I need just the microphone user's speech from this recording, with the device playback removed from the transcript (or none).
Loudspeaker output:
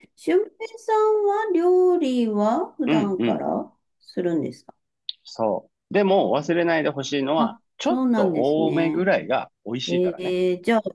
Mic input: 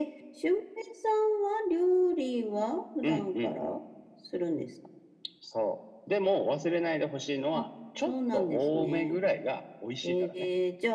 none